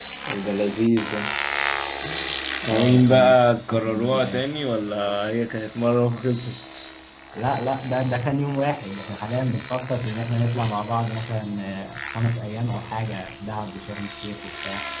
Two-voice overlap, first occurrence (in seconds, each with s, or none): 2.6 s